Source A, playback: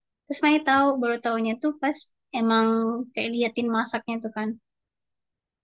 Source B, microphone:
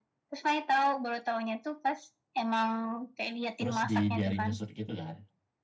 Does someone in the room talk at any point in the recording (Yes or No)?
Yes